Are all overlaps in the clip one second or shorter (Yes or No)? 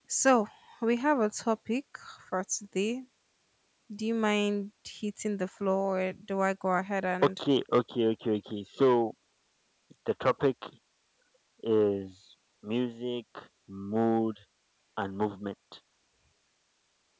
Yes